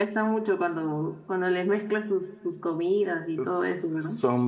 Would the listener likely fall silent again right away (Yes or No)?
No